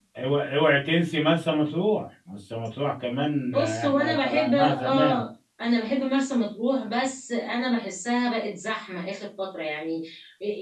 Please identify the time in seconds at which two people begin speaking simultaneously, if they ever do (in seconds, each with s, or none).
3.5 s